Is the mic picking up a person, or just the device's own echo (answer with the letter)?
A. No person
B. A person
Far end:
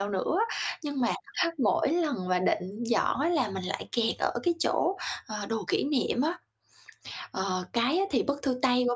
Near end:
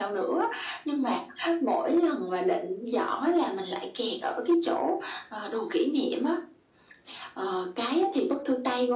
A